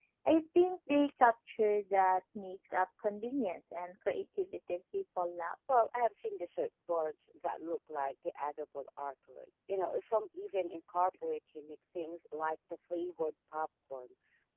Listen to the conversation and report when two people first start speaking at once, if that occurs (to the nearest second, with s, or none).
none